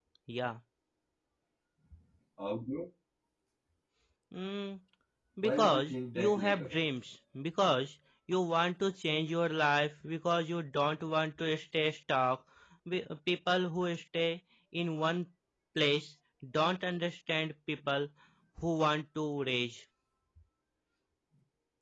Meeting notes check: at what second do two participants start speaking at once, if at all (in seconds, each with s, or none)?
5.4 s